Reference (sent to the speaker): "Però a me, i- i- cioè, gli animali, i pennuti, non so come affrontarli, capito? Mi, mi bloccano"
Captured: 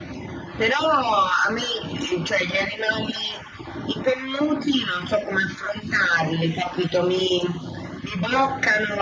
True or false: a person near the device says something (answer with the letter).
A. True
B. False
B